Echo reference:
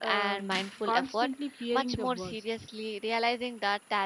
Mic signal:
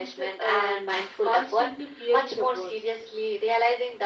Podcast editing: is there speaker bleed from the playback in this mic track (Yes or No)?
Yes